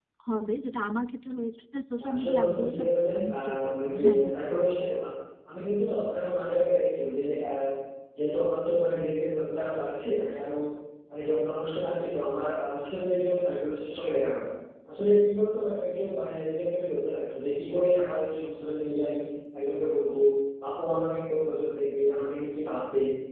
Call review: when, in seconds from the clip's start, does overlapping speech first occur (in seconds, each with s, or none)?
2.0 s